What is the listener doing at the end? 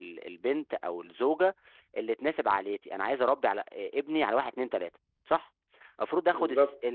listening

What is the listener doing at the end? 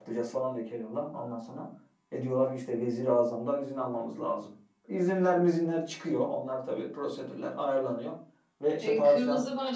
taking over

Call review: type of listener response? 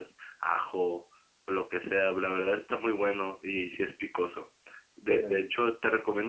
listening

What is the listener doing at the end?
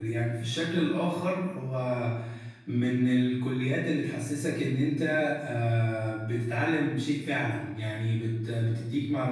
listening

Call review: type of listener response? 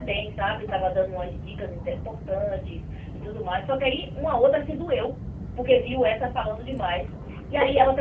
listening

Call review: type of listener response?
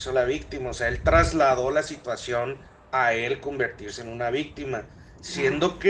listening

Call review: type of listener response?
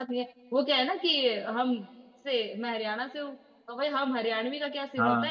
listening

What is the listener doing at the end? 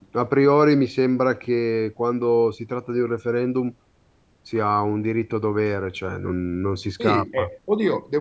taking over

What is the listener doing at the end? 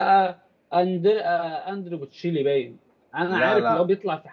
listening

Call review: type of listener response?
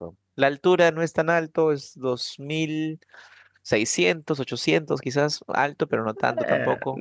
taking over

